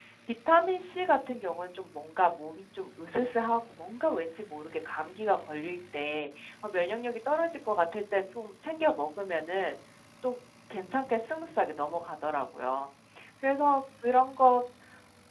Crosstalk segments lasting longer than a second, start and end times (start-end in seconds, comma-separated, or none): none